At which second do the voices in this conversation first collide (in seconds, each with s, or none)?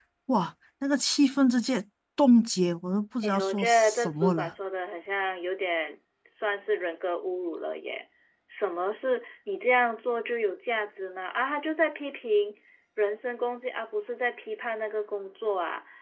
3.2 s